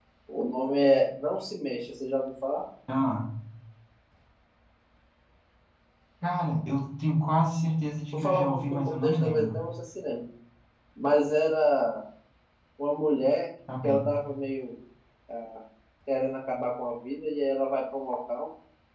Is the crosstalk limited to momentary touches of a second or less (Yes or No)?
No